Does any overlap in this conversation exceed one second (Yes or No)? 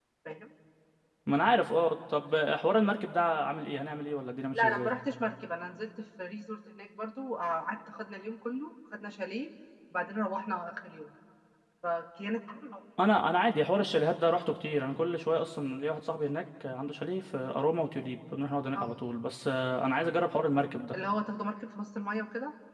No